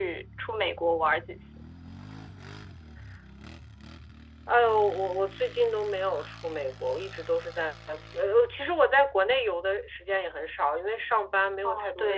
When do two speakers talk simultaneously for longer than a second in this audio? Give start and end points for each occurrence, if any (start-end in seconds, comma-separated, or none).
none